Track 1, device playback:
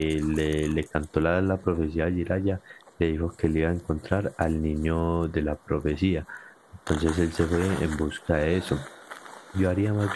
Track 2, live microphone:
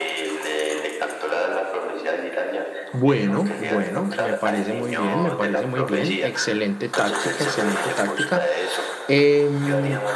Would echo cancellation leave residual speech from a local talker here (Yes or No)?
Yes